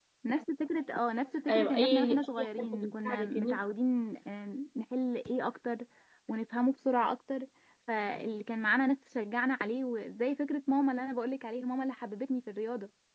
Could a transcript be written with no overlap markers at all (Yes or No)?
No